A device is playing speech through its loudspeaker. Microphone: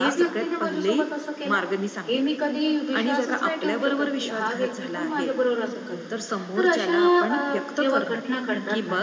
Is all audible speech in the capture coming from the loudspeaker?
No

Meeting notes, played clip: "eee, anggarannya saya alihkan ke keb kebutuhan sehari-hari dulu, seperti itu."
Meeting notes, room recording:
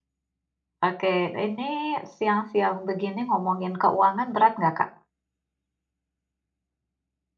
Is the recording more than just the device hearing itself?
Yes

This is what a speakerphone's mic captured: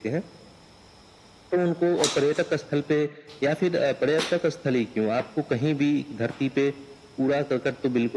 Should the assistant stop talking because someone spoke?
No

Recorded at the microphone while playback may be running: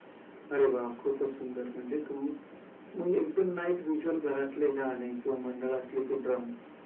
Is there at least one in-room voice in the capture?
No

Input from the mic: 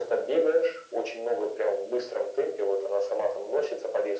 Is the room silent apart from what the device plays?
Yes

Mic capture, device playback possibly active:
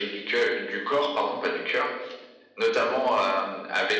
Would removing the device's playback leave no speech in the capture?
Yes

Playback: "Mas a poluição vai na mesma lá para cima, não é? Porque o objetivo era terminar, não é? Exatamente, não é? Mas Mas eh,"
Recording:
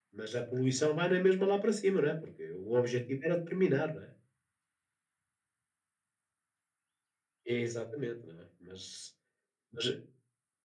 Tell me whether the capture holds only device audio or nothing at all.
Yes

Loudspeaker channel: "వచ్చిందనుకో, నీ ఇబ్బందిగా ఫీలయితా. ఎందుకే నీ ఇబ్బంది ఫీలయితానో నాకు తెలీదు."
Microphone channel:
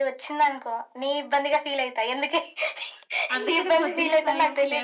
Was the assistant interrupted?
Yes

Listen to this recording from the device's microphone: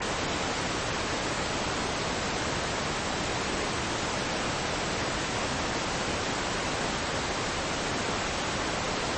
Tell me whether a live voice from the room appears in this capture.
No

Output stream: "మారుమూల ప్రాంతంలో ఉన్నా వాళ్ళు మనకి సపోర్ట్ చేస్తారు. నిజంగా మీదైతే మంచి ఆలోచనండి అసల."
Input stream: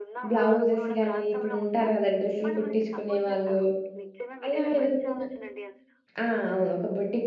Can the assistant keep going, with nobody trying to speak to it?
No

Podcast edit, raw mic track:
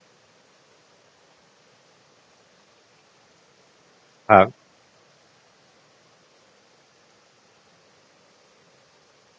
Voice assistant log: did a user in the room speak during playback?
Yes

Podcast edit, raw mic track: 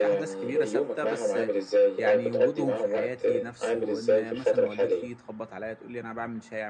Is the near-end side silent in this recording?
No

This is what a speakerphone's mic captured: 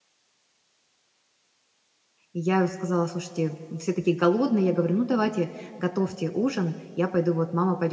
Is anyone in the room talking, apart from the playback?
Yes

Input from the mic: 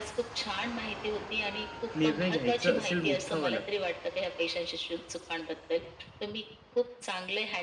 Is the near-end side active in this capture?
Yes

